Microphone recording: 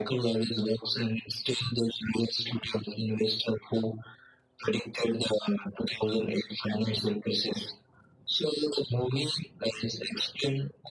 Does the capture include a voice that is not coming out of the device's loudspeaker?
No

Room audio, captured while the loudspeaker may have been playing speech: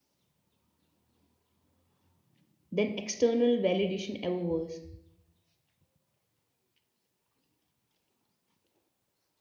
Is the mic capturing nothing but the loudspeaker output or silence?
No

